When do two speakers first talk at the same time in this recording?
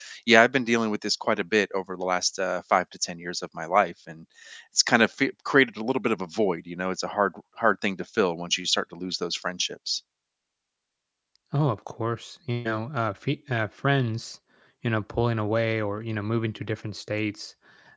none

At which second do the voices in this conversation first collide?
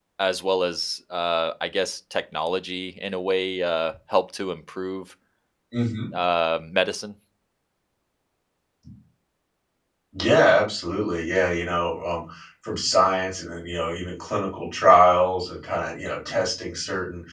none

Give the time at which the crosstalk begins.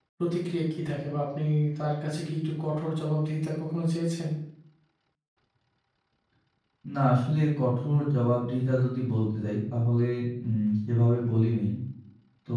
none

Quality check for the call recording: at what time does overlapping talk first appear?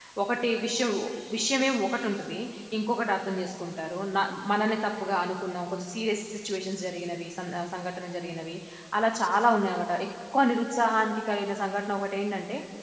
none

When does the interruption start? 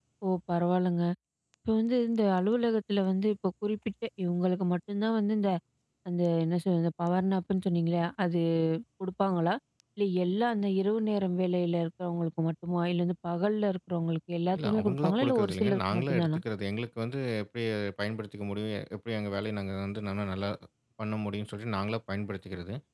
14.5 s

